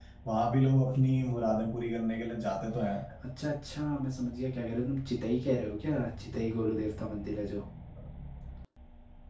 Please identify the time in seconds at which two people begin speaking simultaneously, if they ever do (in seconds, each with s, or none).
none